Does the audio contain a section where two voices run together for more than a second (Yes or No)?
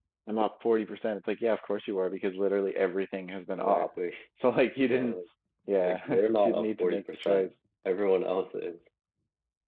Yes